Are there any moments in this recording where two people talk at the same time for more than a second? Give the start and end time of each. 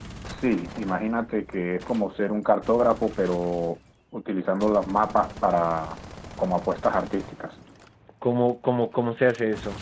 none

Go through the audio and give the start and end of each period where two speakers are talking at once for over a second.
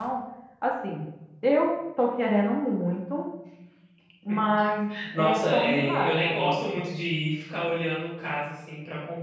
5.2-6.7

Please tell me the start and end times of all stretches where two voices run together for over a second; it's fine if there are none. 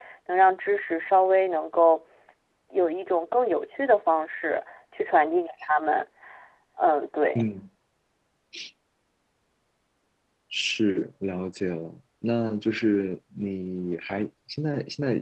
none

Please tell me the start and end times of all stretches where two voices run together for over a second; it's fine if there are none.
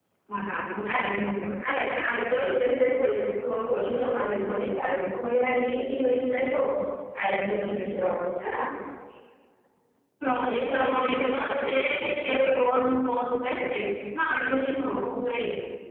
10.5-12.3

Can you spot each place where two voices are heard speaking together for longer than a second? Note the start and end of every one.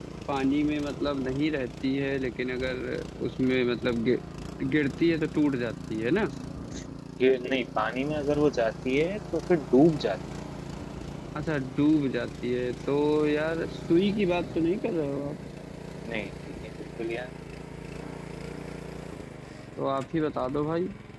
none

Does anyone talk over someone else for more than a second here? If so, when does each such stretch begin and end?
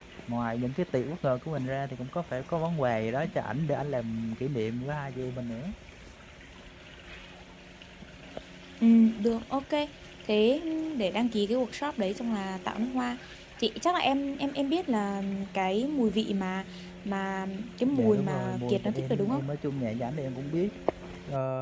17.9-19.4

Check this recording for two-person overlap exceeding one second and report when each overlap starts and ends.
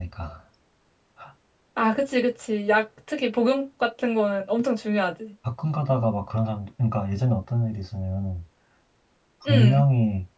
none

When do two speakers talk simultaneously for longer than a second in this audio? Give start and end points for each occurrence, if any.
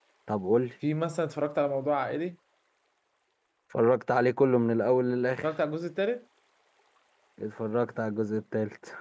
none

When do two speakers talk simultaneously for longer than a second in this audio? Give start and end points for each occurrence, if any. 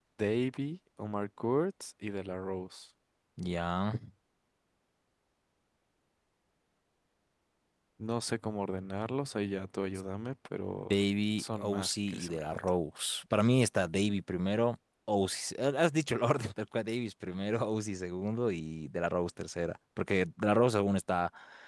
11.4-12.6

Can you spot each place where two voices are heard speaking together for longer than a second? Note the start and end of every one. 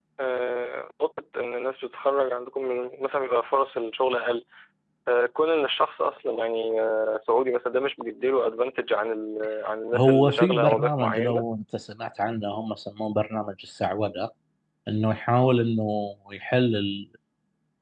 9.9-11.4

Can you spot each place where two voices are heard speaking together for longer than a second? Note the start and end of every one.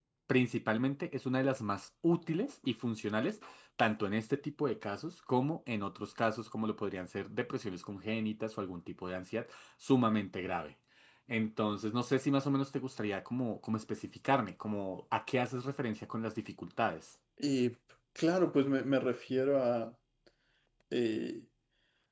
none

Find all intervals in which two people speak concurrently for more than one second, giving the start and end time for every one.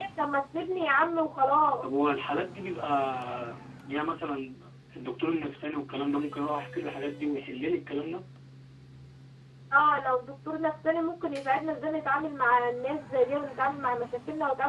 none

